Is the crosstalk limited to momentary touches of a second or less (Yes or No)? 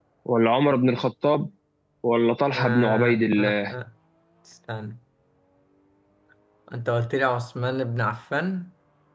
No